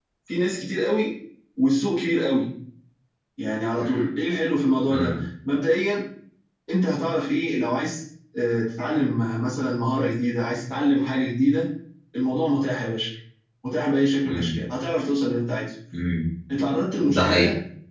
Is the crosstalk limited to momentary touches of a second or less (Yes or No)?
Yes